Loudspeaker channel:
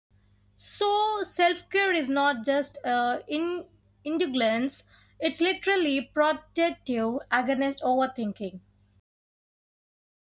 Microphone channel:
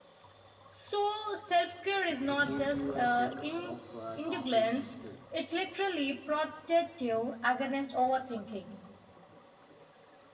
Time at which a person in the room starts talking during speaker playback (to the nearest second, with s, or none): 2 s